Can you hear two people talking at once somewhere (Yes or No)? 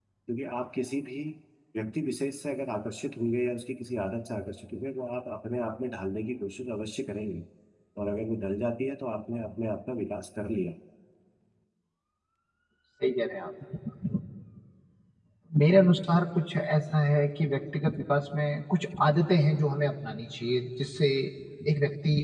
No